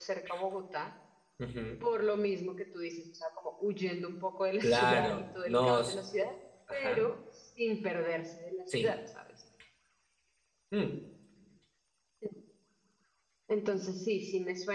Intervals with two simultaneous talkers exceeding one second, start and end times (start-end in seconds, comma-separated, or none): 4.6-6.0